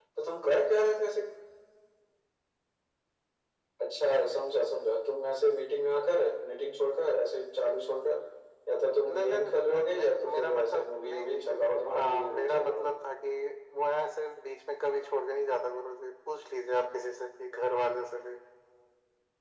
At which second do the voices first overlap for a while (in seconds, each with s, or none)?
9.0 s